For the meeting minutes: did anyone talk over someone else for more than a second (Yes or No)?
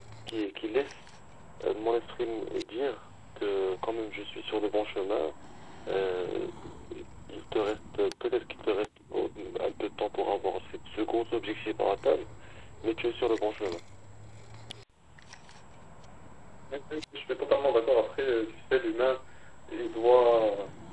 No